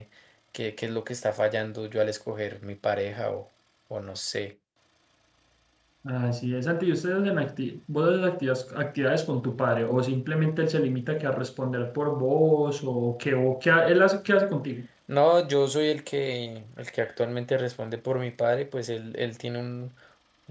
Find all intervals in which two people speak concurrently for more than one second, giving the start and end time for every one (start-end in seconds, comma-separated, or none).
none